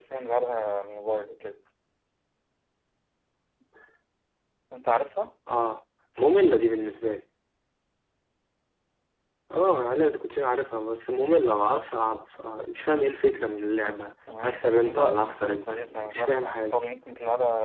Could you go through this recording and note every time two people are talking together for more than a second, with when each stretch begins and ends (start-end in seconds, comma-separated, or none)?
14.4-16.7